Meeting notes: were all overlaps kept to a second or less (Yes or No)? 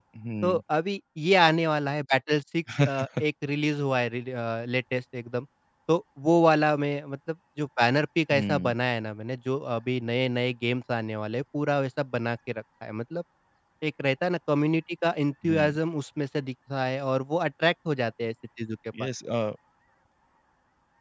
Yes